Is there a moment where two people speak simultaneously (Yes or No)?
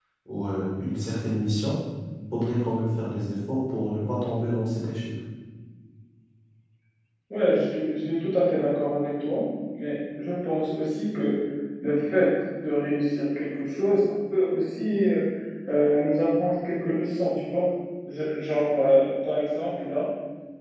No